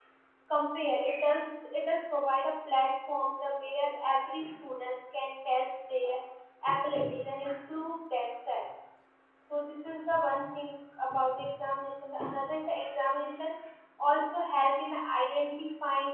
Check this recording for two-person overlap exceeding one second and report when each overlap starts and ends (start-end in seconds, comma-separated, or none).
none